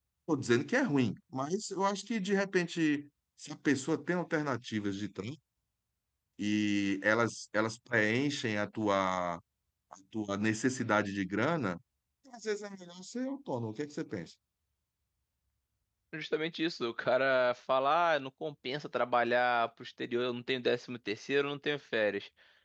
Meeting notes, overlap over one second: none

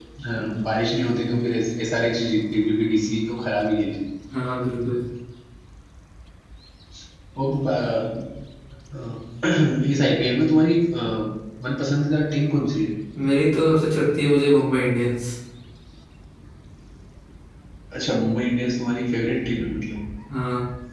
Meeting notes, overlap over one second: none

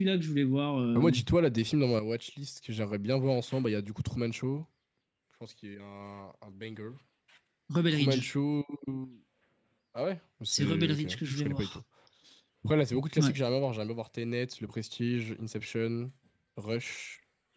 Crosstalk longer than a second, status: present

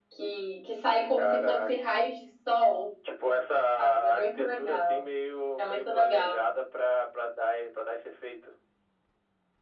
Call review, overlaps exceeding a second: present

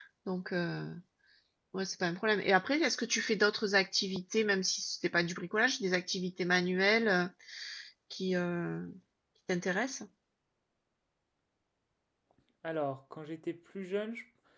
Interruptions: none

